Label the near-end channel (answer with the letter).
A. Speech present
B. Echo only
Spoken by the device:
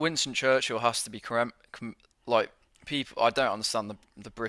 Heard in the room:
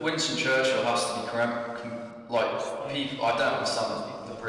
A